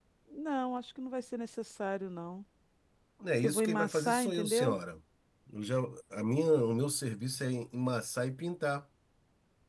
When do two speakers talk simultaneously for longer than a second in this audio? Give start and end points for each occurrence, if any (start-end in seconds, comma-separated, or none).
3.4-4.8